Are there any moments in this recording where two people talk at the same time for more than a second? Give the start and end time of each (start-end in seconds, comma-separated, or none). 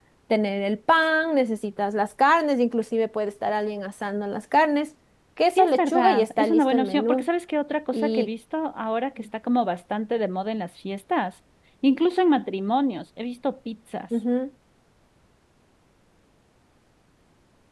5.6-7.3